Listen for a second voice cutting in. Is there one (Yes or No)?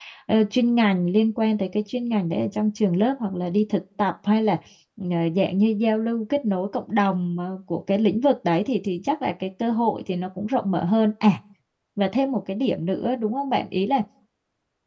No